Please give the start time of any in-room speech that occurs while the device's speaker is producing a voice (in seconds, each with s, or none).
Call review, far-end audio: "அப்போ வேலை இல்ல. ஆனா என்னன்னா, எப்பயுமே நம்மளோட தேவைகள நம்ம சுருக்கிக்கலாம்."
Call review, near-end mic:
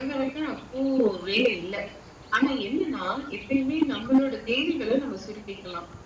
none